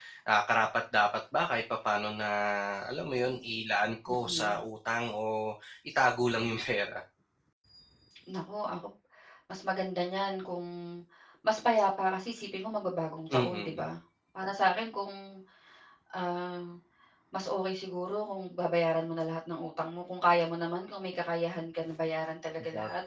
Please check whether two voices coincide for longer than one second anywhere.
No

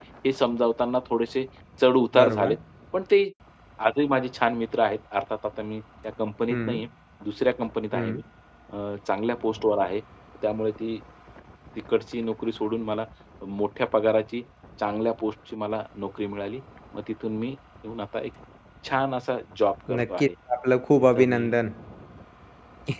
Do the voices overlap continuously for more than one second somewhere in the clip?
No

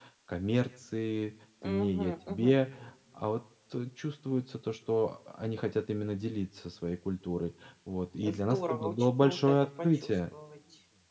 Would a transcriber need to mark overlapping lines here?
Yes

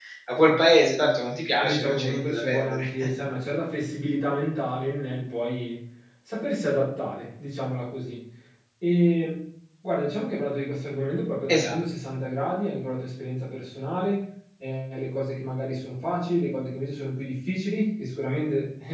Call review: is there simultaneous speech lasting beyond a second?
Yes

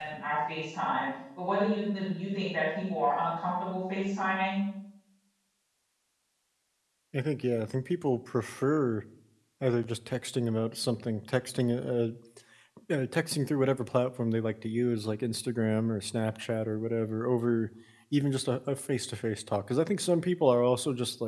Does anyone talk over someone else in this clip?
No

